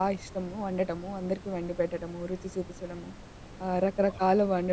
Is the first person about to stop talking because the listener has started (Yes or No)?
No